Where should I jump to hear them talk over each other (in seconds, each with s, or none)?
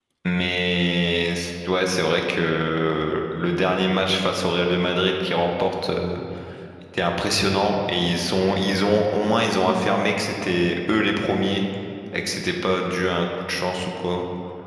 none